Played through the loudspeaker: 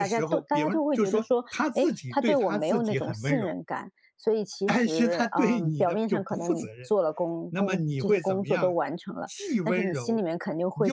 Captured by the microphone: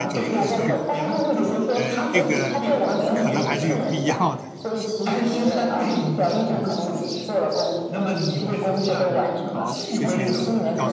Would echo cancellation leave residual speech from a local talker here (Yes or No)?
Yes